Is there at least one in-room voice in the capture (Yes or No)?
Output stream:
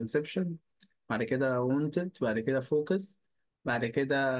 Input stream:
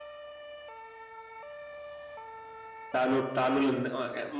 Yes